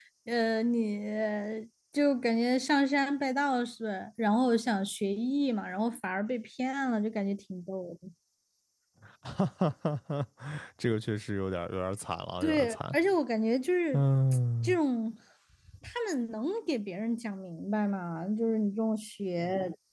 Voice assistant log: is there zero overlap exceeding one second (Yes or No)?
Yes